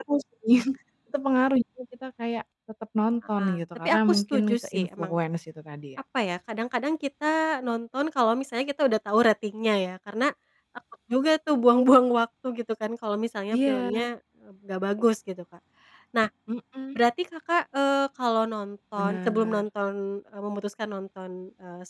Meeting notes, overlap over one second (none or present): present